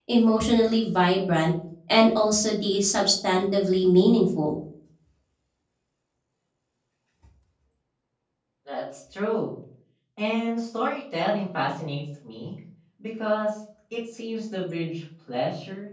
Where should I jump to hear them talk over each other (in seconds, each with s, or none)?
none